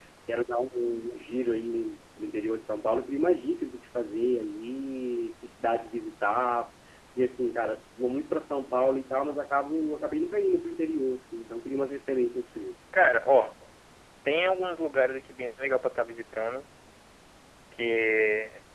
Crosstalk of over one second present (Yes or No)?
No